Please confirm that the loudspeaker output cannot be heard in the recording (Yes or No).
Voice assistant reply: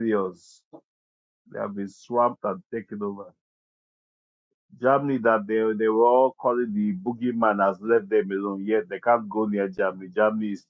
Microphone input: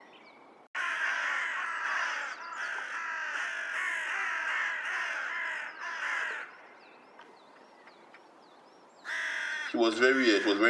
Yes